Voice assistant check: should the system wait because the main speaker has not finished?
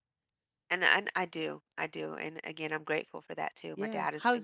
No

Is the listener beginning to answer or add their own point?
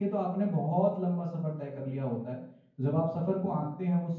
No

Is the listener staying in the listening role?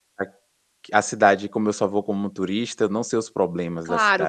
No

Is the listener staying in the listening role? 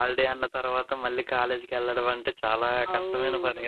No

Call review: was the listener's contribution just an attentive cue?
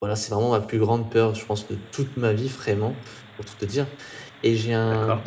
Yes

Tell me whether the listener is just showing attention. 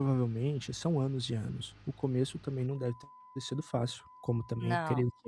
Yes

